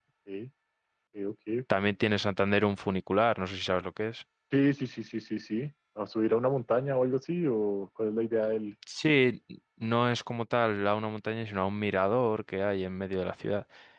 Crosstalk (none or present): none